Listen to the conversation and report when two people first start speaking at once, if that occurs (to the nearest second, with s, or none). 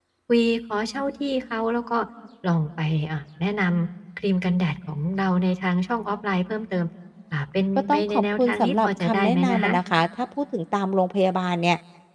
8 s